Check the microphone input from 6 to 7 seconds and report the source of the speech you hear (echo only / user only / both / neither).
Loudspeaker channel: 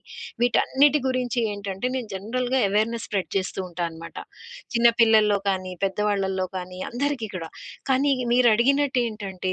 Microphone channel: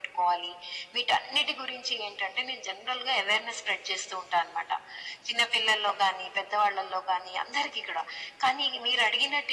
echo only